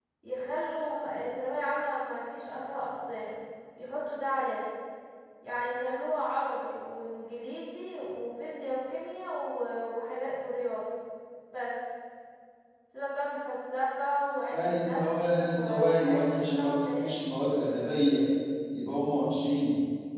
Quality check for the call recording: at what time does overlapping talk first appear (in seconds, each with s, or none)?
14.5 s